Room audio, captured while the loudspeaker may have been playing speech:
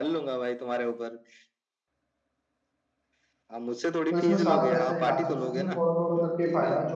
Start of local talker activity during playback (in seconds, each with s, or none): 4.1 s